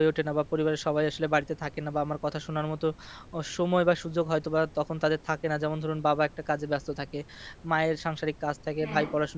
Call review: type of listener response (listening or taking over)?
listening